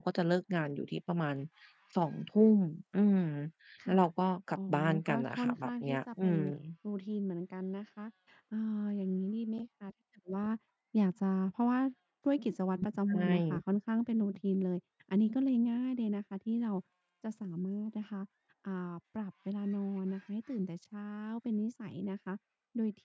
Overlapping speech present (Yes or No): Yes